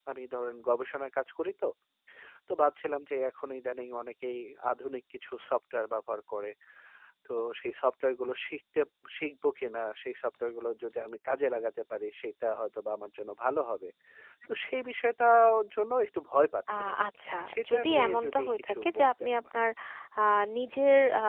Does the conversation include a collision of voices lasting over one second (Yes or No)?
Yes